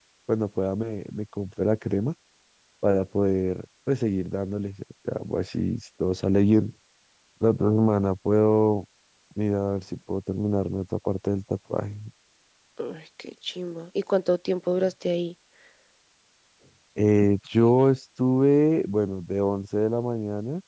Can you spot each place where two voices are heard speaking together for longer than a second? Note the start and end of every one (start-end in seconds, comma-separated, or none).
none